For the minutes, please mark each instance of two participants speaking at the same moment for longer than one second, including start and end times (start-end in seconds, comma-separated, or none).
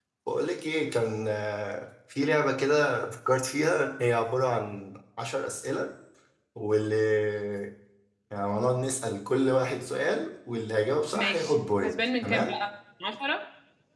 11.1-12.6